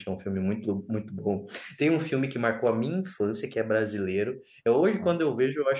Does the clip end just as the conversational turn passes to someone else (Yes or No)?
No